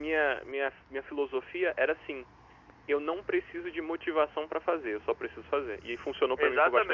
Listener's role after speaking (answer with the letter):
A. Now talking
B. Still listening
A